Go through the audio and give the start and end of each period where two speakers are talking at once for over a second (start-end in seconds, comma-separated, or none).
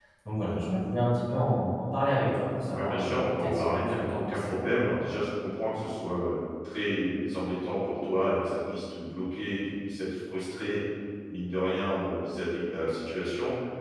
2.7-4.5